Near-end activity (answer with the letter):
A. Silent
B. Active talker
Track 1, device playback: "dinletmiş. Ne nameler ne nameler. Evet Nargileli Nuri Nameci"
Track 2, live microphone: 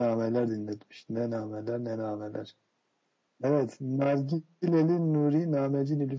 A